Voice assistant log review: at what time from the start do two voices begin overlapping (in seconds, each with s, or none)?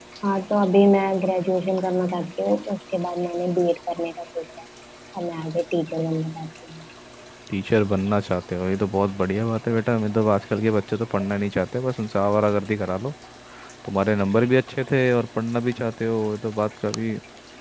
none